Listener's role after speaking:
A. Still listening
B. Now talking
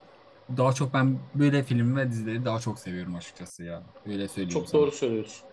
B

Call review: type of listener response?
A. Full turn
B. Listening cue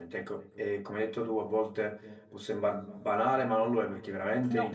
B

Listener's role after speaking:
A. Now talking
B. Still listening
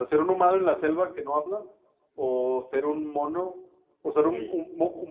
B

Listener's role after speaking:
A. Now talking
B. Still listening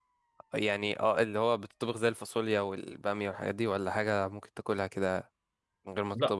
A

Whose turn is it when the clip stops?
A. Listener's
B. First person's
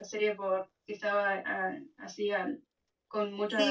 A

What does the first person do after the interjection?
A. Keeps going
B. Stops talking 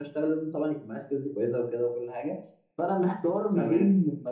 A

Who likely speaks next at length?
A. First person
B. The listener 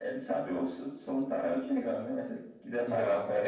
B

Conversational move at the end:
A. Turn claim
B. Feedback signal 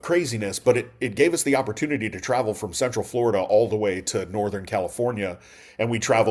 B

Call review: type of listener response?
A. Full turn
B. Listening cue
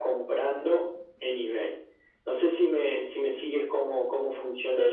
A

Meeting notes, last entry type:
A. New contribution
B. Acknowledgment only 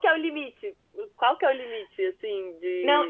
A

